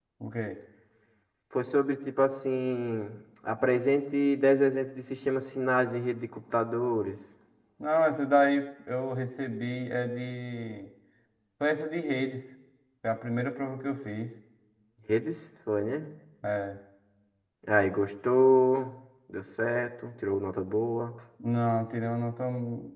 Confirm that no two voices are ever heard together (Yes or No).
Yes